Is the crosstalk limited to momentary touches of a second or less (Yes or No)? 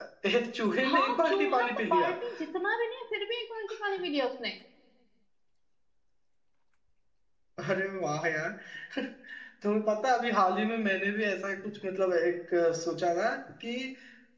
No